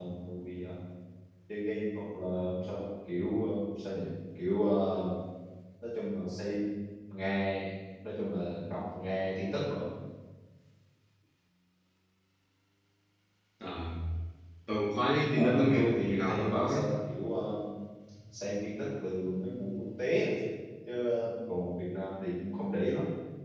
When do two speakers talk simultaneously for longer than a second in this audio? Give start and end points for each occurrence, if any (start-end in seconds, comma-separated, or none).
15.3-16.8